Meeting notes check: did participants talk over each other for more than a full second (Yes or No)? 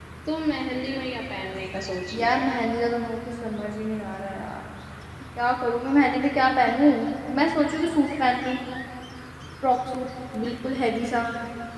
No